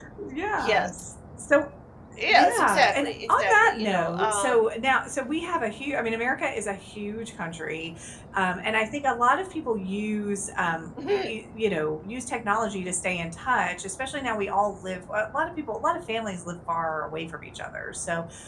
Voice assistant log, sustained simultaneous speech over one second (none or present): present